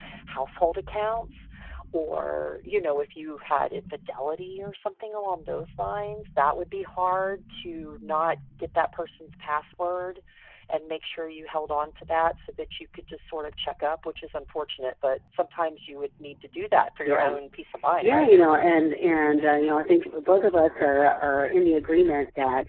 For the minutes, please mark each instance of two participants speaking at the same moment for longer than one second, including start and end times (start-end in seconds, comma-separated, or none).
none